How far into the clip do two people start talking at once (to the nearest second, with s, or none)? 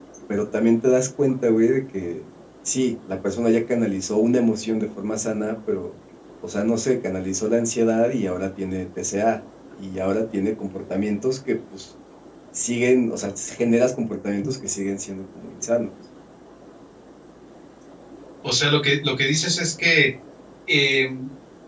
none